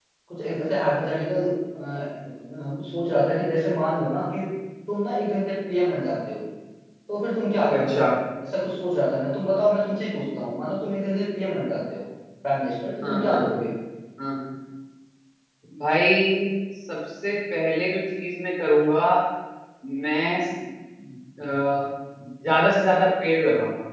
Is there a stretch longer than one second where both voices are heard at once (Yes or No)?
No